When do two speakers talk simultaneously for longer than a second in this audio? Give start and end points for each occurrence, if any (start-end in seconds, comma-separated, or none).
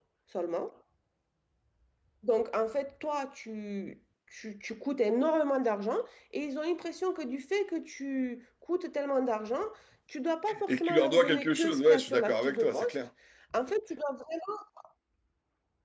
10.7-13.0